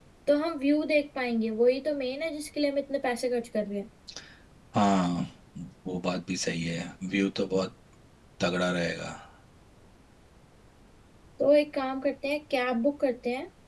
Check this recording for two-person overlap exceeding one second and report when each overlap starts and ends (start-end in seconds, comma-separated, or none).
none